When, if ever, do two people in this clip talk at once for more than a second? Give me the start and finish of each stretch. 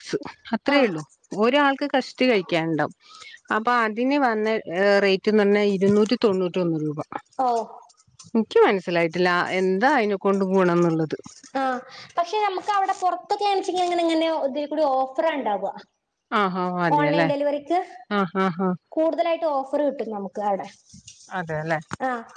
none

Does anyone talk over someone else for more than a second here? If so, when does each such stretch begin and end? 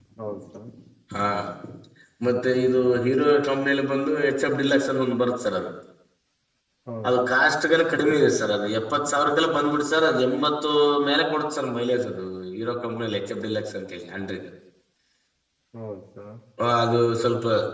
none

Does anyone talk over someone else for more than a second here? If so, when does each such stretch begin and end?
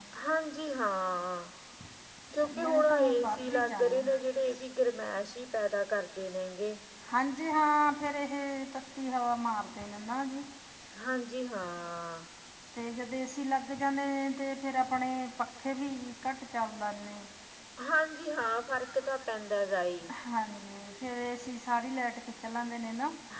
2.4-4.0

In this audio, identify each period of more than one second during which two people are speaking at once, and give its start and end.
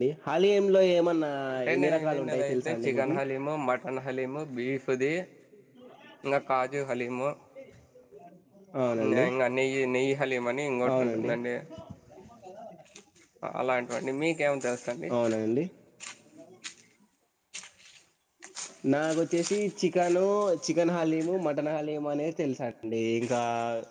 1.8-3.2

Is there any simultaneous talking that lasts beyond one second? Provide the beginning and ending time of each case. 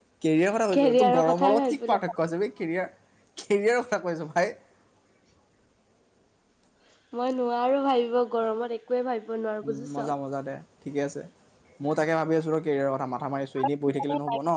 0.7-2.0

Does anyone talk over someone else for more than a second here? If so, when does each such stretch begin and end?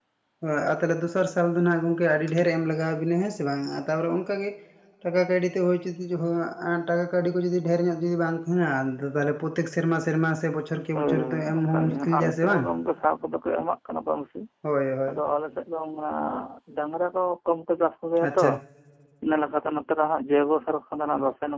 10.9-12.6

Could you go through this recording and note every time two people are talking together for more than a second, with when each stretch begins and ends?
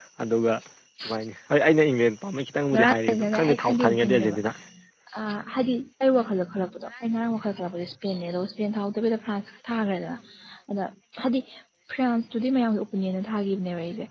2.7-4.4

